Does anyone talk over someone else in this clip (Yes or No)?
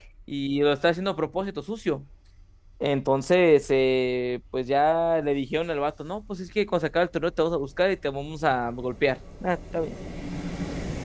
No